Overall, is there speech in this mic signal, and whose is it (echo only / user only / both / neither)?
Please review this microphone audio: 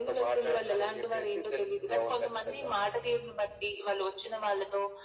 echo only